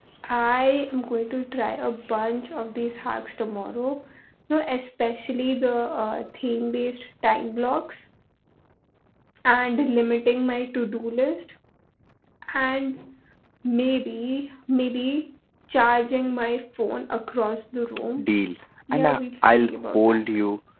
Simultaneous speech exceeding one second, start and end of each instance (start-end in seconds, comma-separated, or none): 18.9-20.2